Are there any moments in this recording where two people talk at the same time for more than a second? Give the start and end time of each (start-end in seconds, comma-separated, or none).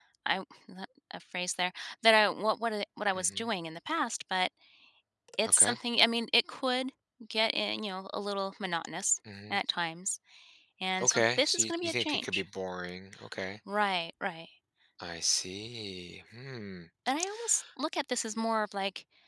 11.0-12.4